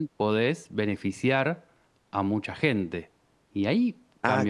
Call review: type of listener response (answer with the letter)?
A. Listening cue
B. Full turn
B